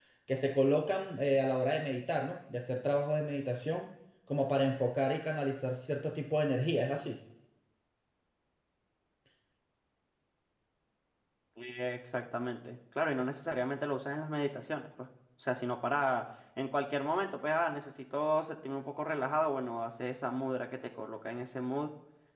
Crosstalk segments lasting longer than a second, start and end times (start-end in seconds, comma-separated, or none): none